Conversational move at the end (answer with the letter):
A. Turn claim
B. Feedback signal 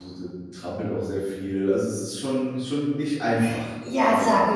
A